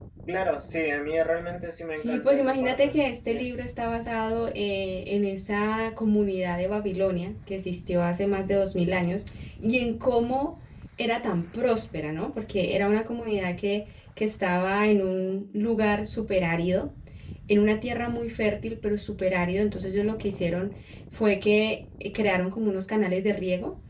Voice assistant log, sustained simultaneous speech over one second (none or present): present